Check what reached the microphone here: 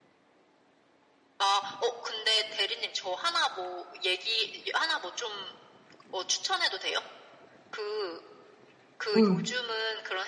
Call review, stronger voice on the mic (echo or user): user